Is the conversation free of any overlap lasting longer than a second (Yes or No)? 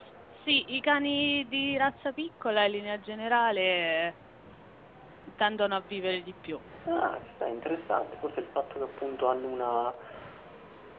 Yes